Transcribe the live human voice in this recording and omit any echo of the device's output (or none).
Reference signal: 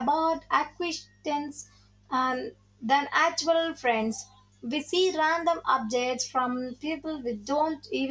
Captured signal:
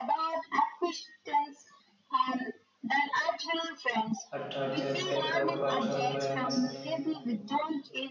attracted back up at humans